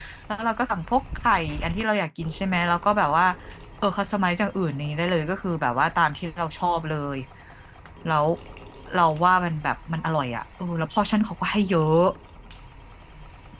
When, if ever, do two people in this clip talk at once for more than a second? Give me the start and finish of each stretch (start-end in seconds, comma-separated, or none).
none